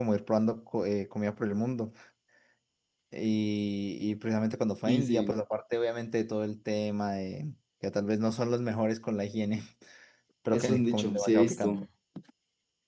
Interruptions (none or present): present